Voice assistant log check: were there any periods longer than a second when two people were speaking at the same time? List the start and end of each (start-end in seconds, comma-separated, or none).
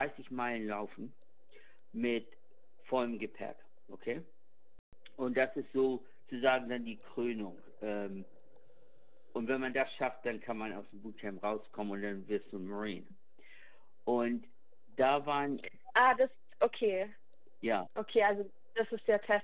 none